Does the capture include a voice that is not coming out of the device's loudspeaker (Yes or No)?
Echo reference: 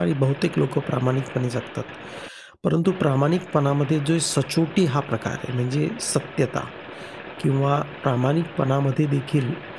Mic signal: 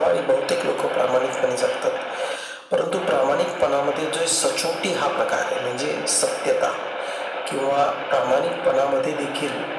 No